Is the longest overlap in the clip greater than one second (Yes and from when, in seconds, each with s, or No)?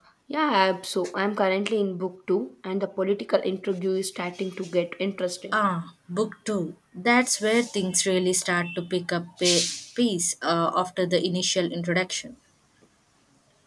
No